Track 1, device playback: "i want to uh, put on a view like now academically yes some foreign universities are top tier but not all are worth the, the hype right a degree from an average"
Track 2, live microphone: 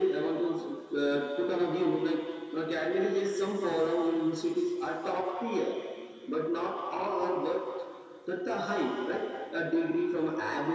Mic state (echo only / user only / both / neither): echo only